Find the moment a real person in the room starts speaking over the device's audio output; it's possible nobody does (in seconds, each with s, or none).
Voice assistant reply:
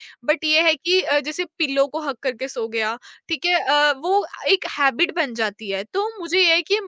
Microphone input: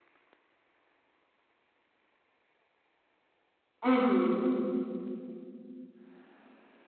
3.8 s